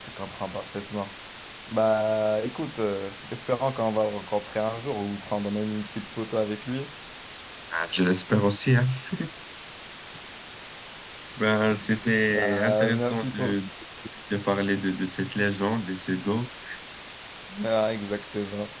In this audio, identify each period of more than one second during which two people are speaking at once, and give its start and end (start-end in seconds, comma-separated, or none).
12.3-13.6